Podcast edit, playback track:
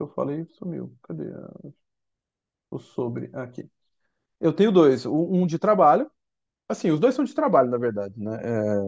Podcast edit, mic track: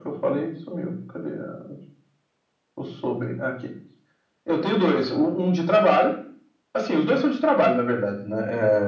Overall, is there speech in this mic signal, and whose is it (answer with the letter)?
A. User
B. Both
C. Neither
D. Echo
D